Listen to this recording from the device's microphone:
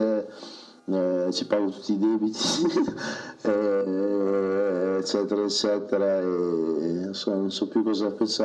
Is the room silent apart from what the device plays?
Yes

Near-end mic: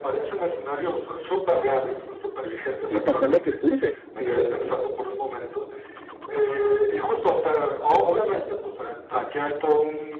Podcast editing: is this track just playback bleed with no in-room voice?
No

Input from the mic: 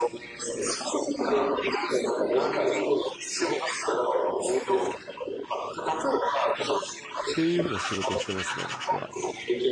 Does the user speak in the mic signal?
Yes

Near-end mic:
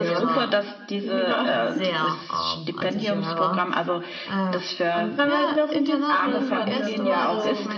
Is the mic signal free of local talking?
No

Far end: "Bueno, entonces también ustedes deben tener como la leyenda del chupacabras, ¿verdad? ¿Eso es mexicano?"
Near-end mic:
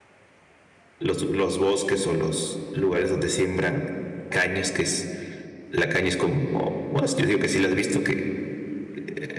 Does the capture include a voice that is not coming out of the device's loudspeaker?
Yes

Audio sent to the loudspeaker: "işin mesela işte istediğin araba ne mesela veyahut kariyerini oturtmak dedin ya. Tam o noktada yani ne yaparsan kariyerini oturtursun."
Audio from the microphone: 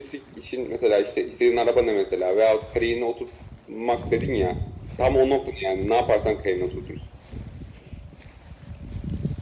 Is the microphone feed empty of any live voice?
Yes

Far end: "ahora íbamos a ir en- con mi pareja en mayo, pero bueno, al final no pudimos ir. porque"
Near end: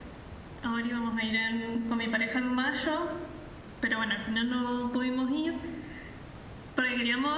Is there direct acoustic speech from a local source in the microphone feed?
No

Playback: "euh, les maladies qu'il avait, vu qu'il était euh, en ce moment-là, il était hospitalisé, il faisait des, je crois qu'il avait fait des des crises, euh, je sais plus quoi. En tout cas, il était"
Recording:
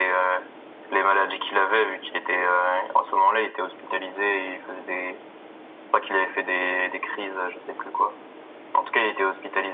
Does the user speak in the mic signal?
No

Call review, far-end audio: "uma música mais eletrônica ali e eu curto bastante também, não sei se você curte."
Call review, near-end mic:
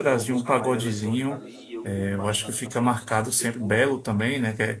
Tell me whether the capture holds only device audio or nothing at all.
No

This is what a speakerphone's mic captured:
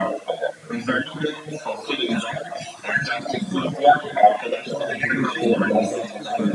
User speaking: Yes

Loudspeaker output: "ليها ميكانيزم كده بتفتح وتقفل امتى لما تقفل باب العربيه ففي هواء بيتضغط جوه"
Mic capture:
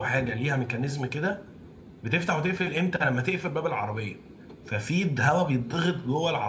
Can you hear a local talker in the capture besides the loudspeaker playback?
No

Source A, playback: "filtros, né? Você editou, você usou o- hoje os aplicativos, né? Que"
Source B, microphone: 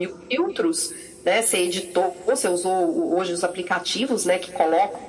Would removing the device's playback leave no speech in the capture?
Yes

